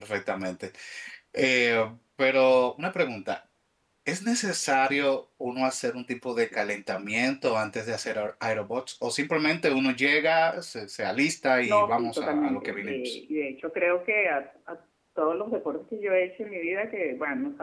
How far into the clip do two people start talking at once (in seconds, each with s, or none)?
11.7 s